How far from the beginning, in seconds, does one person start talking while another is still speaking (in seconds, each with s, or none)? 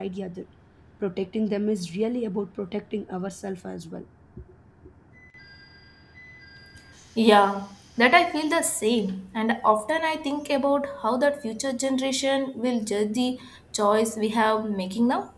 none